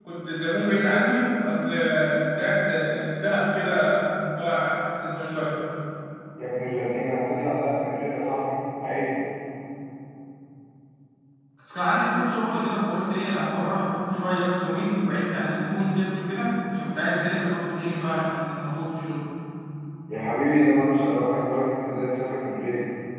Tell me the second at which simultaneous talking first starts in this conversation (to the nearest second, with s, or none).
none